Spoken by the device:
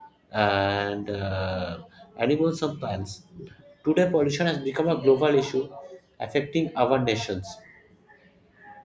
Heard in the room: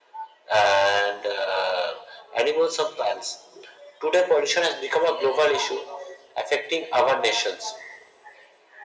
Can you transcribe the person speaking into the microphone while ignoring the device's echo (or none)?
none